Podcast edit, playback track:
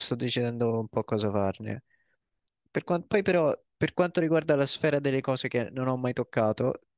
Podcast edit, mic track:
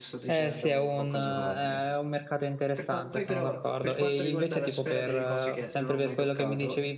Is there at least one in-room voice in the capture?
Yes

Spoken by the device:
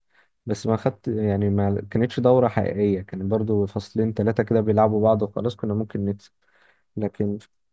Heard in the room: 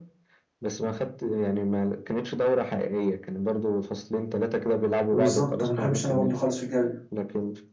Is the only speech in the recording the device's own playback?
No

